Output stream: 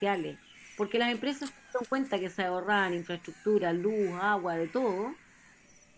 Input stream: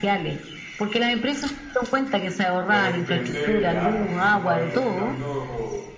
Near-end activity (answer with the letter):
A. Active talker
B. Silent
A